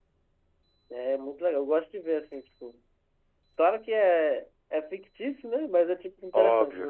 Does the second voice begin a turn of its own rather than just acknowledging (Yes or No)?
No